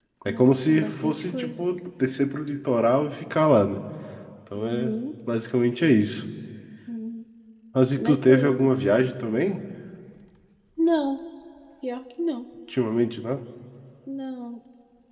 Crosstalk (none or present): present